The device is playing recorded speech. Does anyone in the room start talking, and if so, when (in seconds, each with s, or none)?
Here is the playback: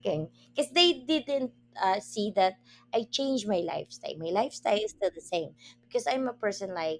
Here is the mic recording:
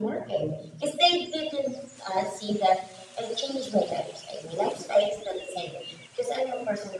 none